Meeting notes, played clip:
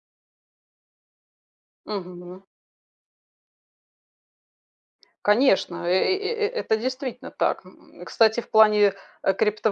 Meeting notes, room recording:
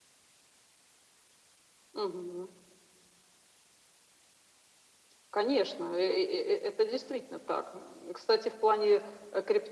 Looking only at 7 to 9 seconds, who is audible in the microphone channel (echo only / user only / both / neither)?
echo only